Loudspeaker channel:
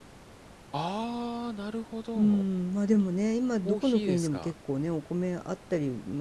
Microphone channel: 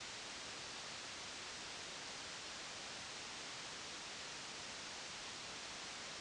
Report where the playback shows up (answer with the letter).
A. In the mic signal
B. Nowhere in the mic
B